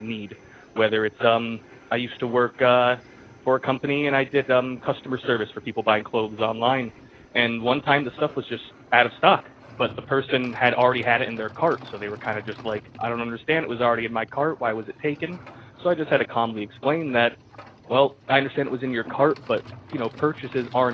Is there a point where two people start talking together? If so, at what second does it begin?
none

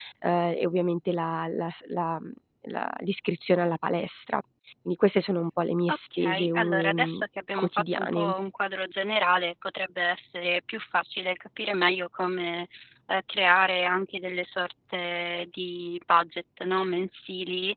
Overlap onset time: 6 s

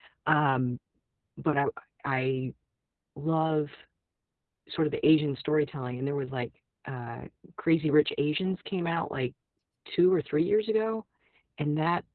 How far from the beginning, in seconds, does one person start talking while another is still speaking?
none

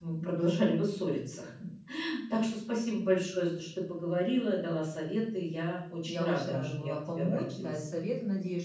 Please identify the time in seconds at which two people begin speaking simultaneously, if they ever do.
6 s

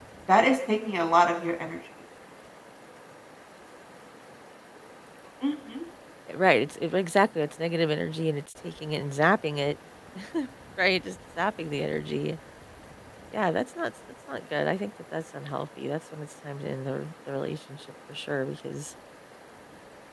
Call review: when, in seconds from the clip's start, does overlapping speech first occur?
none

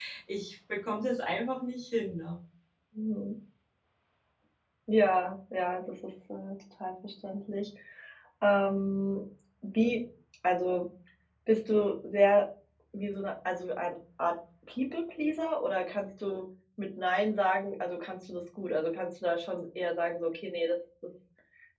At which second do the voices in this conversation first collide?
none

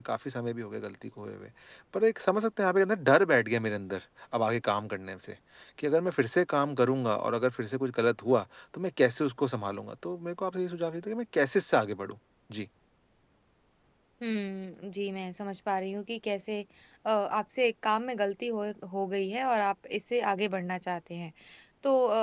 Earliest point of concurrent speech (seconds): none

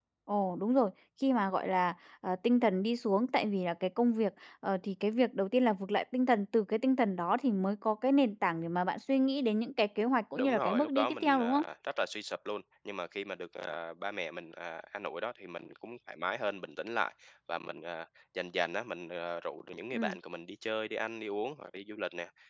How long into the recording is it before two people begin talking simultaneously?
10 s

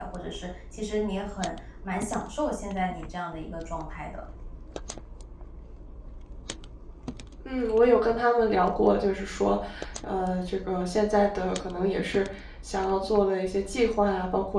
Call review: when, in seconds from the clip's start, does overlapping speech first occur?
none

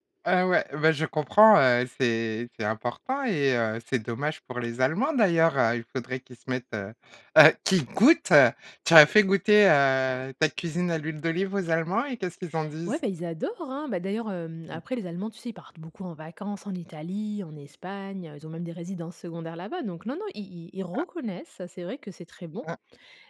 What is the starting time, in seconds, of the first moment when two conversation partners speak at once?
none

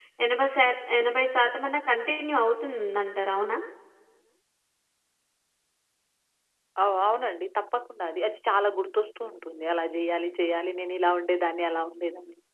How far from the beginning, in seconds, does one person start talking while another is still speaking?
none

